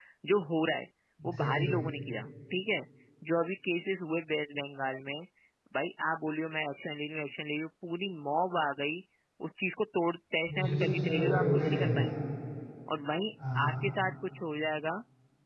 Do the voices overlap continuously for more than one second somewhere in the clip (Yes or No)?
Yes